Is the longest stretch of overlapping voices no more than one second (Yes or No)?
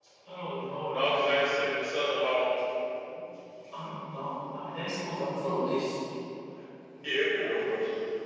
Yes